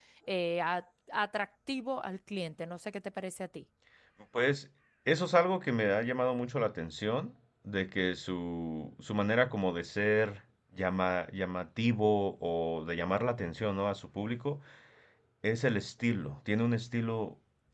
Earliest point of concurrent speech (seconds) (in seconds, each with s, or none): none